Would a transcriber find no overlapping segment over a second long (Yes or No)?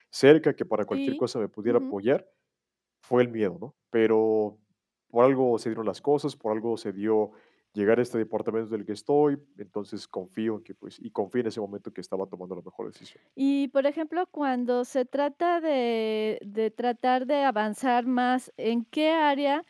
Yes